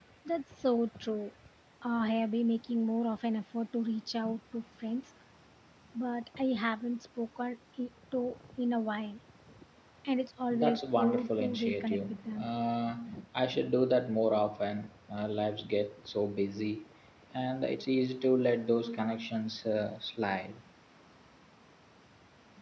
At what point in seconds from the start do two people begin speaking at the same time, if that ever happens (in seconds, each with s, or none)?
10.5 s